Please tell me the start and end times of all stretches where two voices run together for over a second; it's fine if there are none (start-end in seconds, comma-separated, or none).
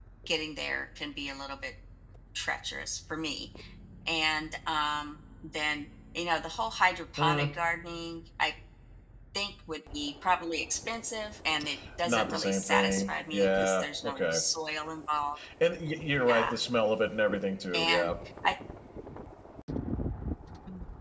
12.0-14.4